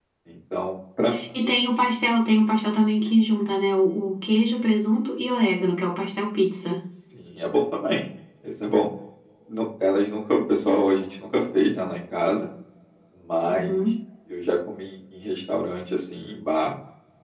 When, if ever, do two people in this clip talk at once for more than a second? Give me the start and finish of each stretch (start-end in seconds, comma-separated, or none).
none